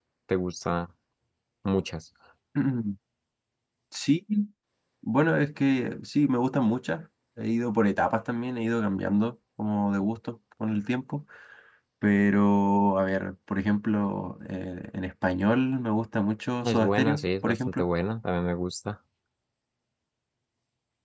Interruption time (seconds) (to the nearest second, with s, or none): 17 s